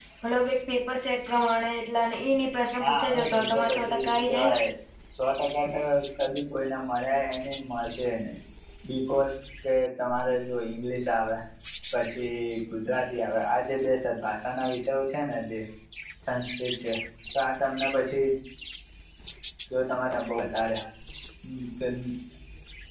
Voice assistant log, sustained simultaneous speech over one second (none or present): present